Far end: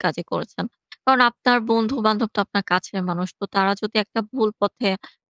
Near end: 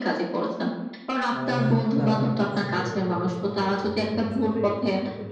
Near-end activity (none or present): present